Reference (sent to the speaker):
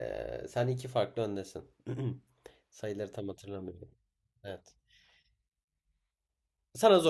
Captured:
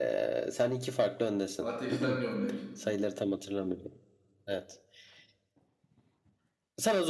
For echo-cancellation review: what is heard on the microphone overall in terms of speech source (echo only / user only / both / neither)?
both